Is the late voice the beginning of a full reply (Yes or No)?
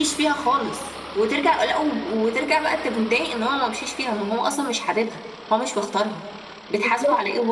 Yes